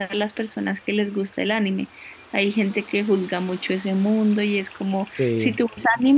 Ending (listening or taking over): listening